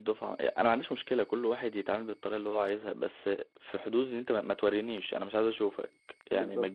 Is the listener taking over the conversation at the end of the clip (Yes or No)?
No